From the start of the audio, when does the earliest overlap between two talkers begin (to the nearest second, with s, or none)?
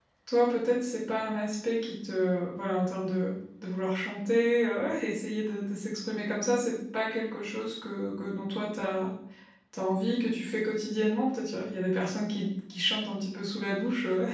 none